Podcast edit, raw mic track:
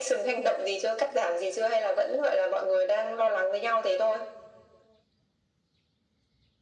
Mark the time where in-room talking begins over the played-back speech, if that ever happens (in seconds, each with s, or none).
none